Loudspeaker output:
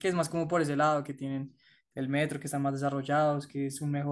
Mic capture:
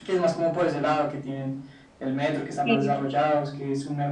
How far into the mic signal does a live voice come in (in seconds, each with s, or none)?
2.6 s